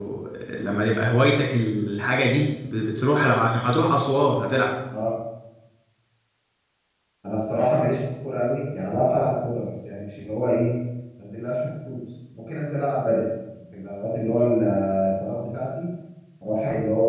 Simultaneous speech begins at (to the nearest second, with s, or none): none